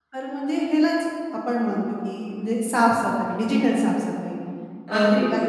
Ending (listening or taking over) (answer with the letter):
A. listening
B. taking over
A